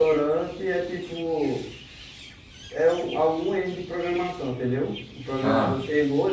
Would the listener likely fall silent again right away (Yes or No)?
Yes